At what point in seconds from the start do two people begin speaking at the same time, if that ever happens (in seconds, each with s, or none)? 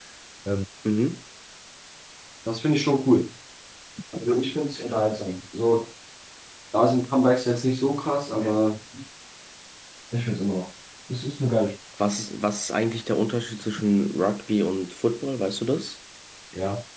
none